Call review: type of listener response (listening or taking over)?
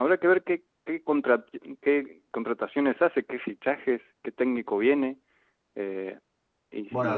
taking over